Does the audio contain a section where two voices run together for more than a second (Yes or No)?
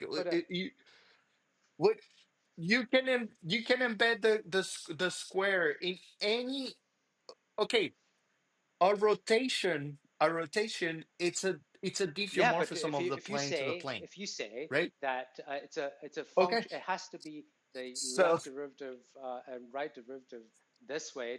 Yes